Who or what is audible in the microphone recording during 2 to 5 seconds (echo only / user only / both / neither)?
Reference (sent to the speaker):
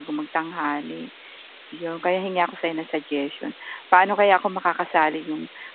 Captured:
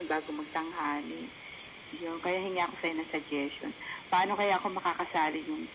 echo only